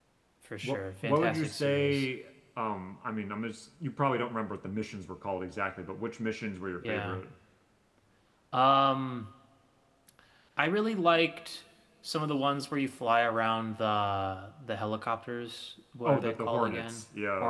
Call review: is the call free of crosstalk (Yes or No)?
No